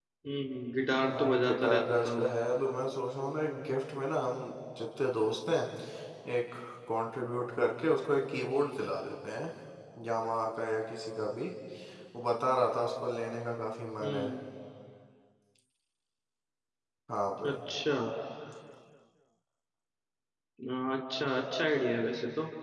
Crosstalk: present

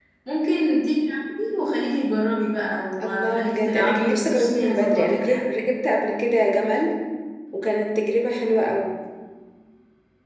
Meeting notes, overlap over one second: present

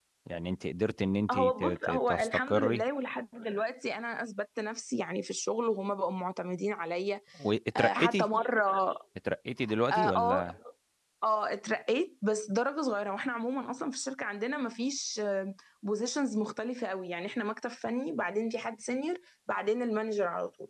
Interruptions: present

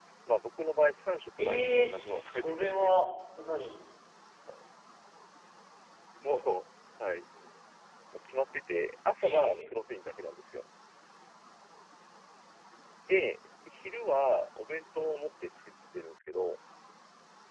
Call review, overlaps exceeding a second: present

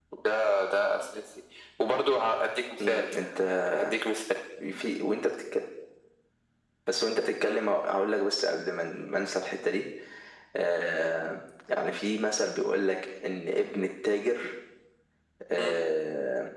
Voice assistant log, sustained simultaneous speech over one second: none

